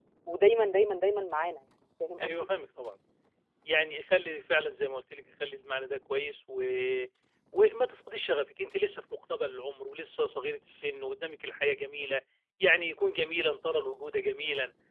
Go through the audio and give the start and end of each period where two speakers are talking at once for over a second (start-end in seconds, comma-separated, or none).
none